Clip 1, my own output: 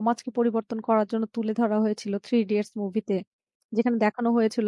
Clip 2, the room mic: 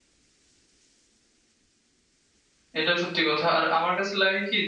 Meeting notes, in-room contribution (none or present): present